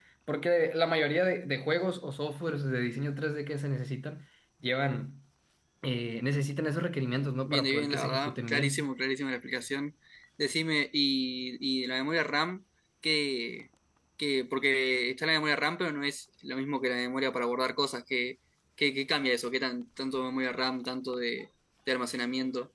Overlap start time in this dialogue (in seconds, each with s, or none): 7.5 s